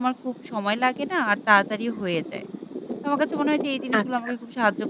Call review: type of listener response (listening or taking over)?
listening